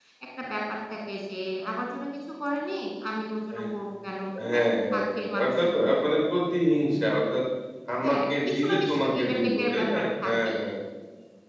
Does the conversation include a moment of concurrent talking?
Yes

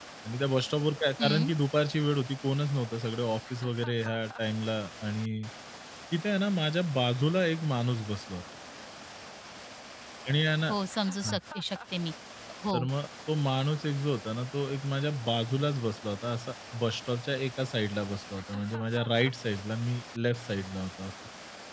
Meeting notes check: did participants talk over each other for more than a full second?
No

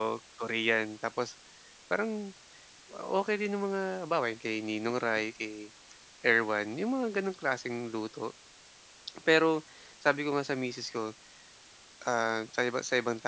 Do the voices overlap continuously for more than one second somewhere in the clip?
No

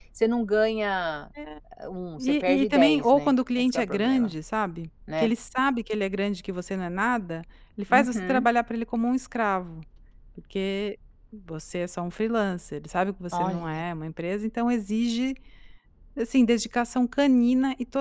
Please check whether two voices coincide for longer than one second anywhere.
Yes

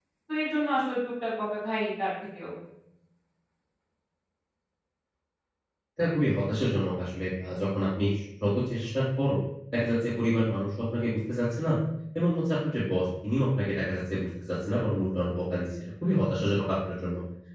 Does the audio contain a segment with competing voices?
No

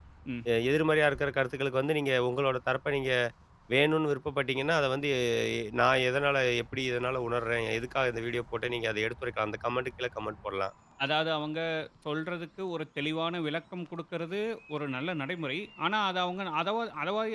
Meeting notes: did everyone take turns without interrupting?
Yes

